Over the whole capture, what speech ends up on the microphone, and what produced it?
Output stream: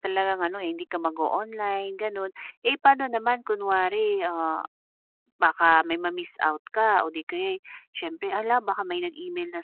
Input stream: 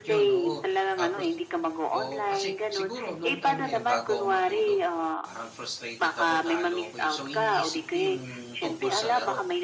both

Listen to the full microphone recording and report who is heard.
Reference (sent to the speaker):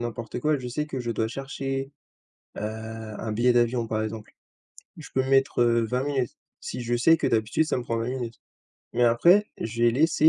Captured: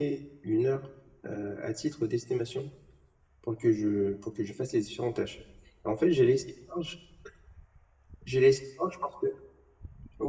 user only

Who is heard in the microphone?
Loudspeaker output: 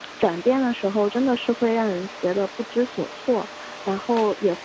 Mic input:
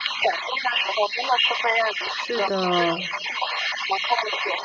both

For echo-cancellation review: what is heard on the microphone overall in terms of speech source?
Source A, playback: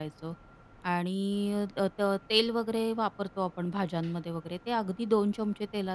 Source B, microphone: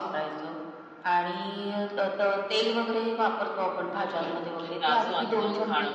both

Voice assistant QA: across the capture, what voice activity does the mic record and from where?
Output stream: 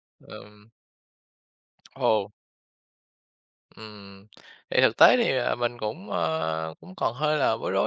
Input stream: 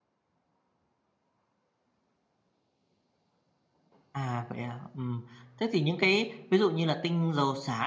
user only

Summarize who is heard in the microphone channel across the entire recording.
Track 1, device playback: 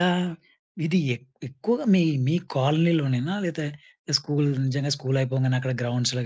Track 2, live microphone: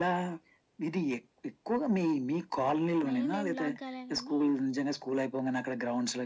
both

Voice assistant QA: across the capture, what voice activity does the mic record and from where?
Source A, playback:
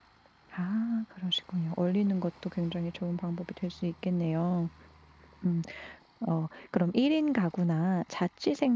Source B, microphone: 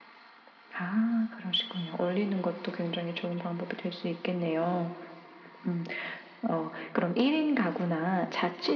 echo only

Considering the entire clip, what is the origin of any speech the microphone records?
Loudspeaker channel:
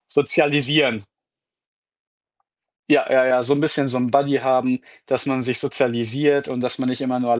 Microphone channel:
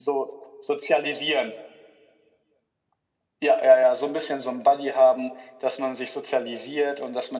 echo only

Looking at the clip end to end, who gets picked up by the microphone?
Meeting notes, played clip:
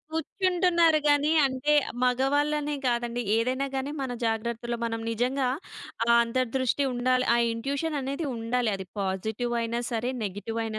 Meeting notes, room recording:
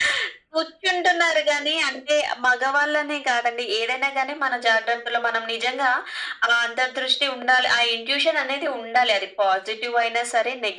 echo only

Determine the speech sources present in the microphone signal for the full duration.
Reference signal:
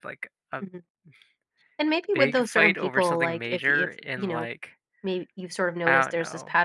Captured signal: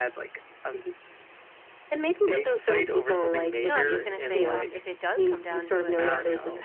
both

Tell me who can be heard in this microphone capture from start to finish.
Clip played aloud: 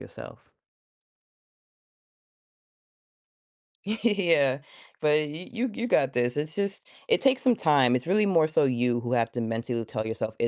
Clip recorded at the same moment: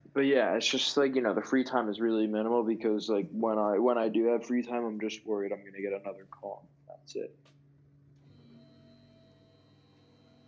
user only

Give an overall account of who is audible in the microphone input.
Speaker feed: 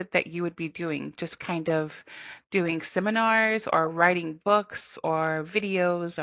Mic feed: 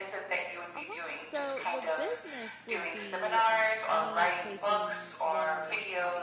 both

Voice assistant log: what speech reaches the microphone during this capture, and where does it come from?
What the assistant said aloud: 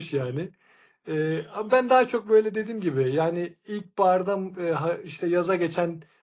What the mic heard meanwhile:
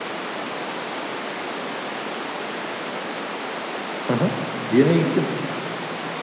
user only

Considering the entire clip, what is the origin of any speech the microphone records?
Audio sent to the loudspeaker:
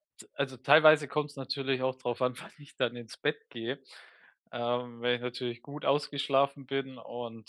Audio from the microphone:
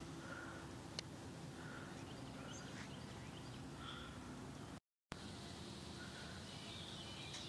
neither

